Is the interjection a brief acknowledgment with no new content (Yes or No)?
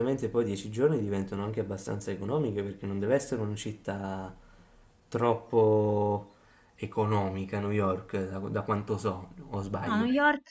No